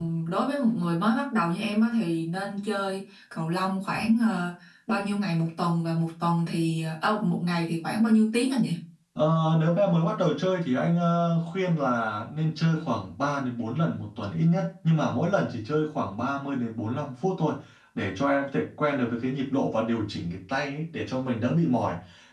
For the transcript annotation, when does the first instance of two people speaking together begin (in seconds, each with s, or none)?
none